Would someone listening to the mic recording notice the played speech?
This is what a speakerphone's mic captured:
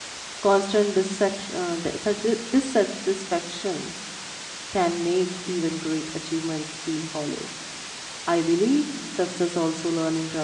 No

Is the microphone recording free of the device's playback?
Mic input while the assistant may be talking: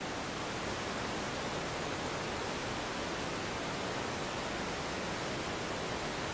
Yes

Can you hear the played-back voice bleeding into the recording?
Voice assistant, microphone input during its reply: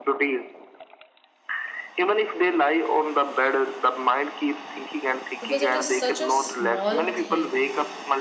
Yes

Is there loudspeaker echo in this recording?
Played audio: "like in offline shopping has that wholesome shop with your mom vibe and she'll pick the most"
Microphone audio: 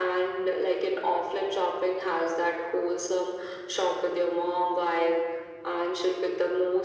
Yes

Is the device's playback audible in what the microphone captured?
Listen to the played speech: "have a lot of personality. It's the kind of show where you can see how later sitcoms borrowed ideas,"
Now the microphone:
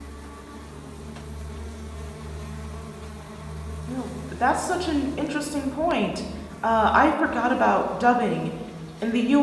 No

